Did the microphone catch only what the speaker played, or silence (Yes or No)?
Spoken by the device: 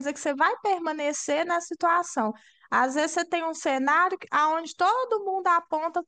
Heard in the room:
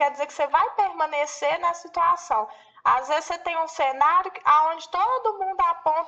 Yes